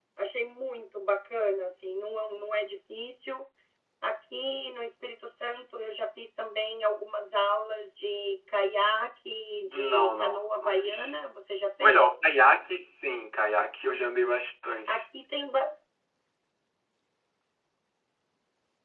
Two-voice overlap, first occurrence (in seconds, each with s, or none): 9.7 s